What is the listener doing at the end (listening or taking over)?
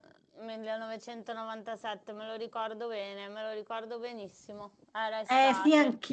taking over